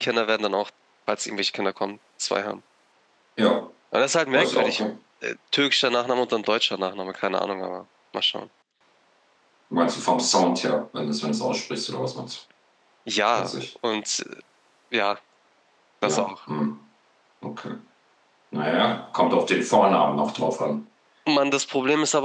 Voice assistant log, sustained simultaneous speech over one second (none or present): none